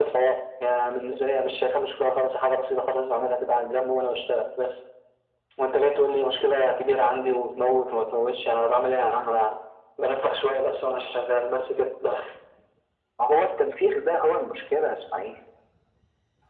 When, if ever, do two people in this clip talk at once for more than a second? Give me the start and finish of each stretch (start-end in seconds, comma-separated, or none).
none